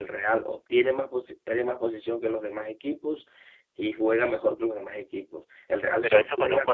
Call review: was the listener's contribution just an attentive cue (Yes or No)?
No